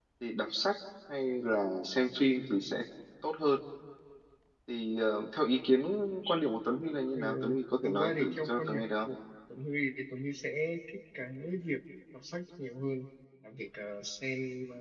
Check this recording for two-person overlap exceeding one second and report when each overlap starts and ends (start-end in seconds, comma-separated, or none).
7.8-9.1